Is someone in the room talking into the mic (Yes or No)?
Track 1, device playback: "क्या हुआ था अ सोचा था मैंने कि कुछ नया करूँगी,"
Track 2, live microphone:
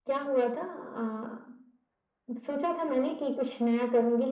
No